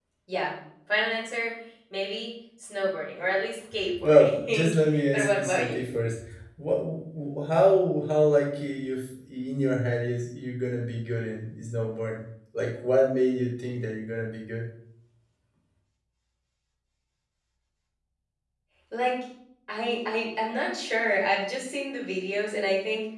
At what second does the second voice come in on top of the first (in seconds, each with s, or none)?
4.0 s